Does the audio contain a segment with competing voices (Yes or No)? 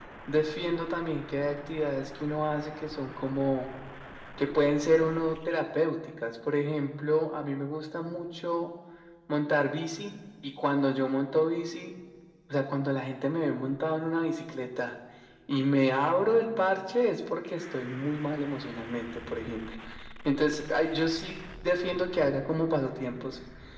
No